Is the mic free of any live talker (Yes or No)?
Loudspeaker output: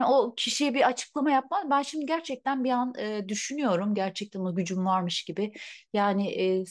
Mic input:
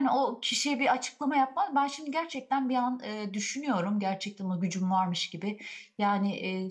Yes